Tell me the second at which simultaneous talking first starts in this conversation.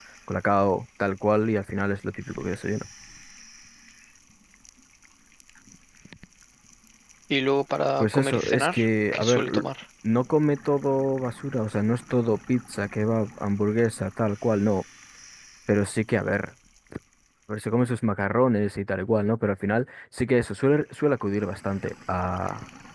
8.0 s

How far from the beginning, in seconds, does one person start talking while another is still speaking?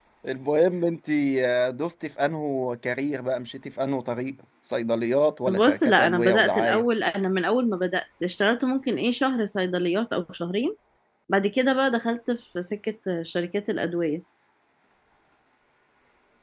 5.5 s

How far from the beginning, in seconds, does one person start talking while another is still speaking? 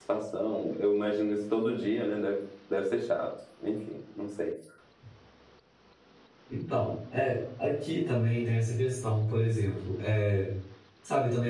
none

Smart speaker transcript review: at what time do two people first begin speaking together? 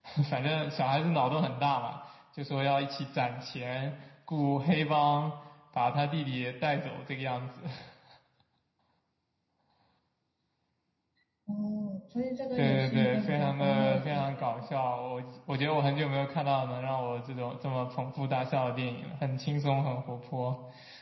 12.6 s

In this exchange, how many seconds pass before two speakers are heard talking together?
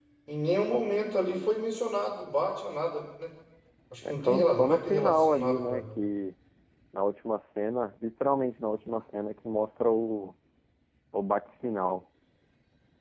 4.1 s

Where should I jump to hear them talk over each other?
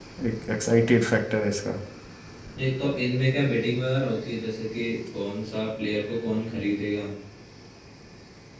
none

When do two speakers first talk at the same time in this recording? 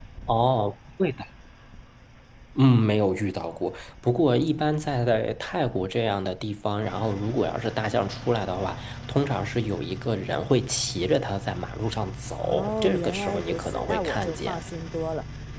12.4 s

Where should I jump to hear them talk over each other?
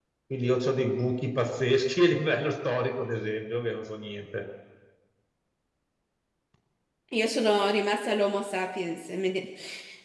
none

